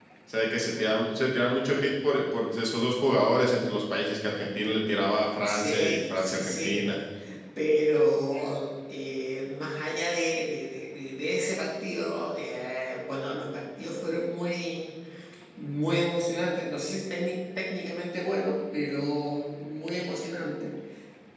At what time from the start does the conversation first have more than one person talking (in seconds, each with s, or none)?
5.4 s